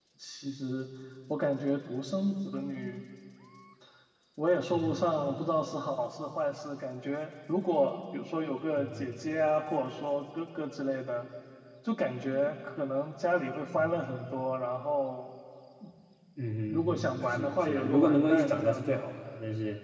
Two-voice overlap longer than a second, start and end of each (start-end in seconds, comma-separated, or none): 16.7-19.0